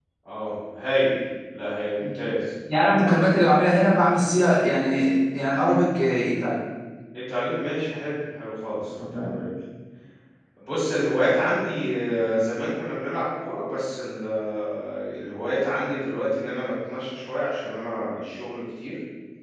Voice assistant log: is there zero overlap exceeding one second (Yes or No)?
Yes